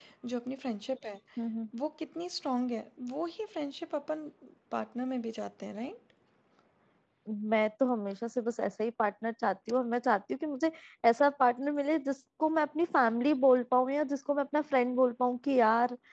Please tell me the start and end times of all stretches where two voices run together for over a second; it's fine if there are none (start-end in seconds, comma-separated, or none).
none